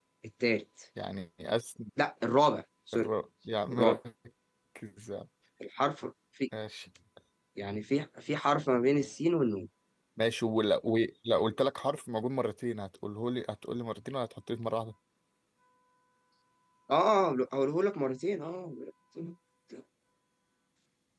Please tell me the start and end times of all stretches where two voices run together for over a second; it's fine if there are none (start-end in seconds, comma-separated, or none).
none